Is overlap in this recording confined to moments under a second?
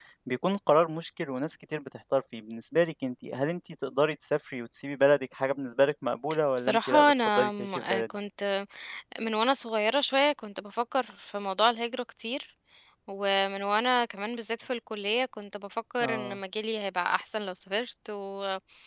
No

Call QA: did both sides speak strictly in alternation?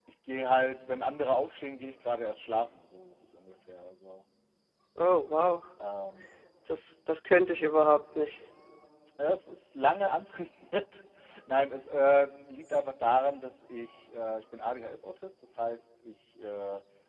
Yes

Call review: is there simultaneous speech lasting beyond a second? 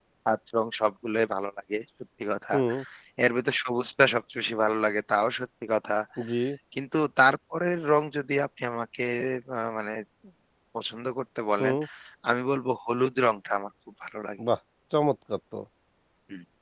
No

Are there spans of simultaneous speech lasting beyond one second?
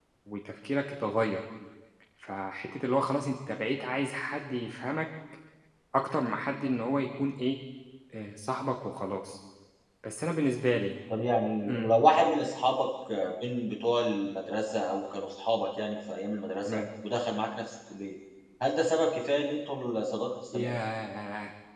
No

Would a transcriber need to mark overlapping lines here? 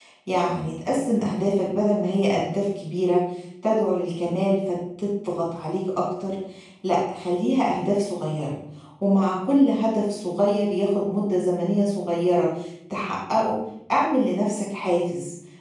No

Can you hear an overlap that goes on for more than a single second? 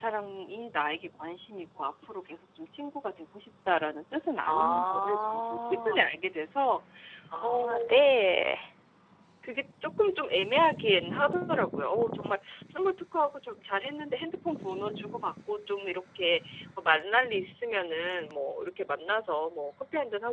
Yes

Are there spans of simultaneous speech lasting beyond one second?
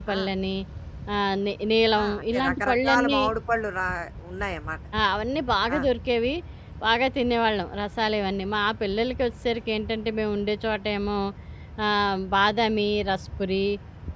Yes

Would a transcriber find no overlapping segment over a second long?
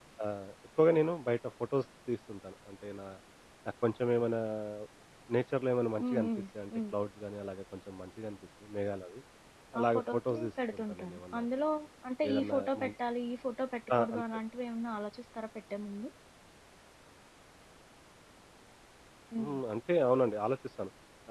No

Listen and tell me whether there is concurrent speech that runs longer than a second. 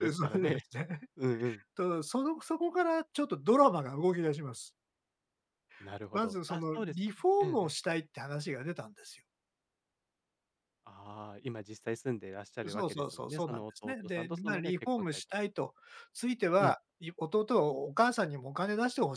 Yes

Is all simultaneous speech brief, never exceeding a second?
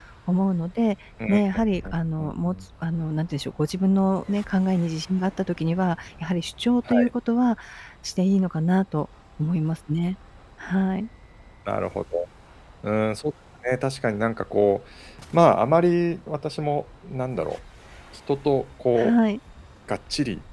Yes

